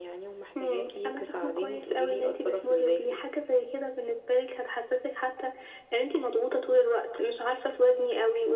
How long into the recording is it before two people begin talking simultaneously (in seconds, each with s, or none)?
0.6 s